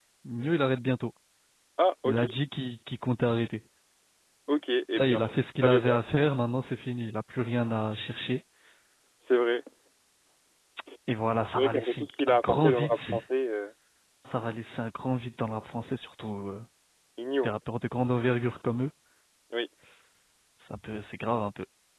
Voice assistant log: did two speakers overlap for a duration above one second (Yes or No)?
Yes